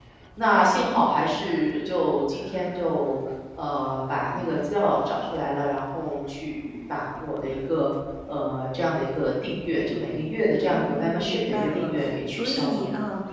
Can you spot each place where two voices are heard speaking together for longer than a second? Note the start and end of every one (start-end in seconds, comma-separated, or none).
10.7-12.8